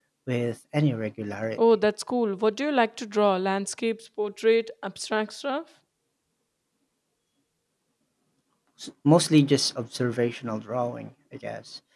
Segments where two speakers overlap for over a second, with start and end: none

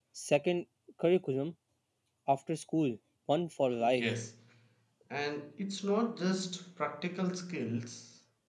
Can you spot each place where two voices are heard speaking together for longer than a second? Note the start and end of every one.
none

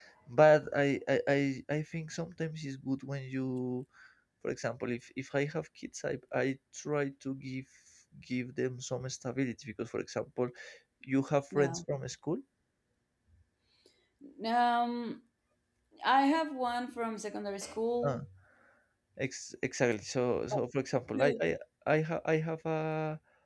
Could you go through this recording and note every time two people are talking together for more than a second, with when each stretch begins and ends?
none

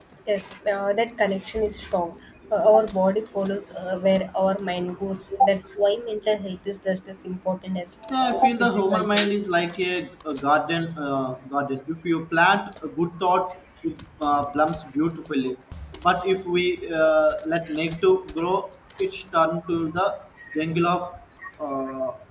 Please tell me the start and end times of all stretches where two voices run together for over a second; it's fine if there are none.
8.1-9.3

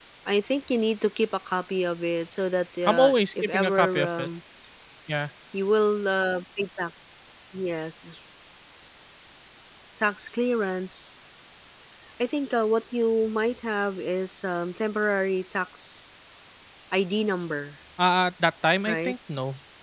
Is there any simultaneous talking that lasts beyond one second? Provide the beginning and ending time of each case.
2.9-4.3

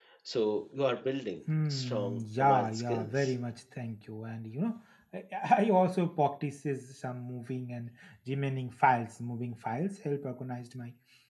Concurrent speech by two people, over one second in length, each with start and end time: 1.7-3.3

